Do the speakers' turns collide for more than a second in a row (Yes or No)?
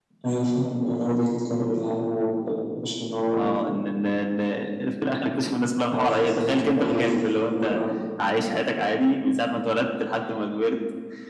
Yes